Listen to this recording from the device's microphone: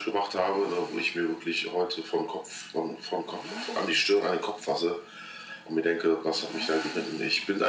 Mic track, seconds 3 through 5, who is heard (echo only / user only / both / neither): echo only